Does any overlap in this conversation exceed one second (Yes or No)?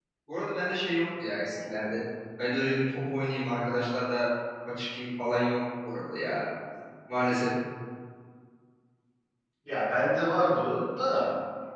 No